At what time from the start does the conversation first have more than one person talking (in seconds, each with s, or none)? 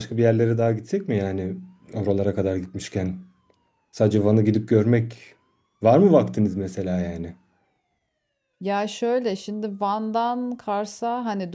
none